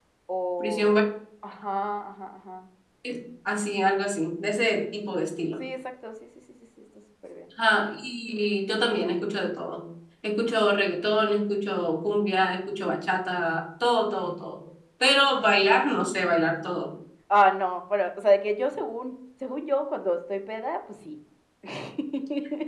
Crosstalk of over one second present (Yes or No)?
No